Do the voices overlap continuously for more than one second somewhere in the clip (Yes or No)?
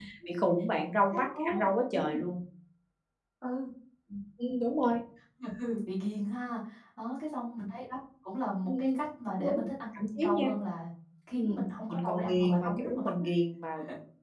Yes